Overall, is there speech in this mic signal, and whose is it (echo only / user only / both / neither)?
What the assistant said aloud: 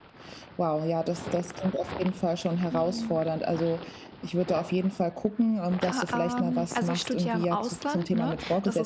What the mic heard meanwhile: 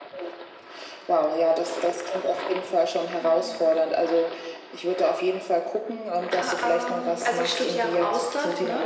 echo only